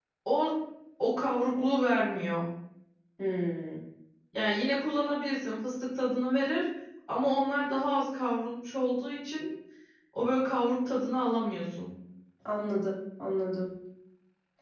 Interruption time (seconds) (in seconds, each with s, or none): none